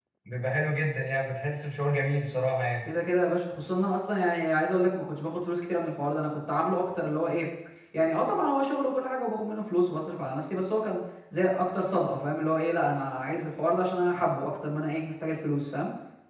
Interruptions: none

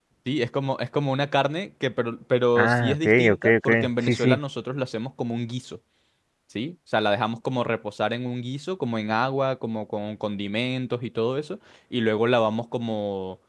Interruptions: present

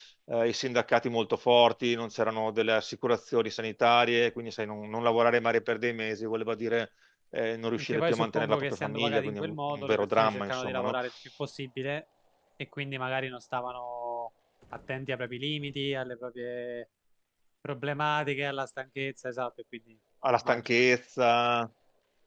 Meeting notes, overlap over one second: present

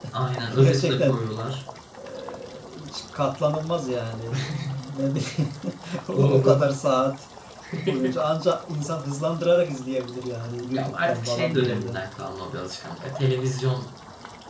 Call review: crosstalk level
present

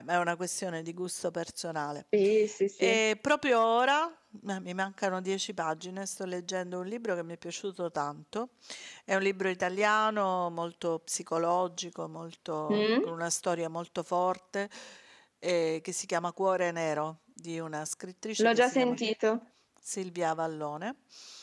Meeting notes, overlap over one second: none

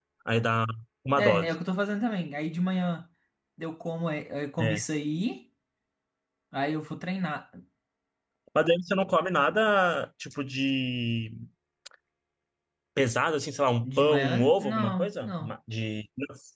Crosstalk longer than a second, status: present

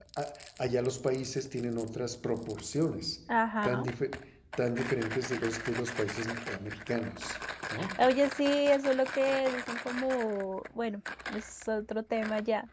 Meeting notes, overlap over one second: none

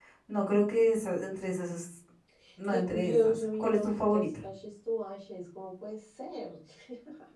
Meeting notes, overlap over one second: present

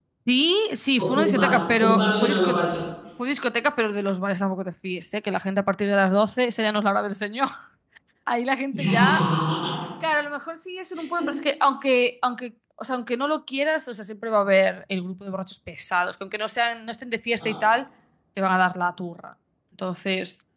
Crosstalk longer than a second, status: present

